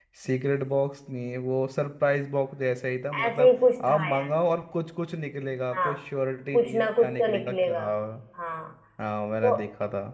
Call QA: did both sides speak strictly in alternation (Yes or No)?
No